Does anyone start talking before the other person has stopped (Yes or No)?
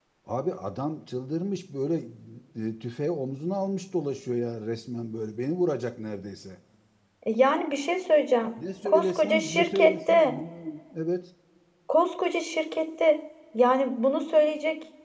Yes